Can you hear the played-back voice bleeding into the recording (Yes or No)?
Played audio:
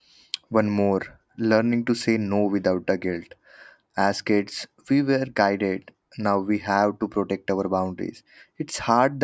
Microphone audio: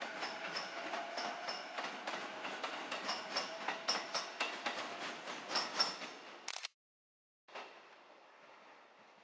No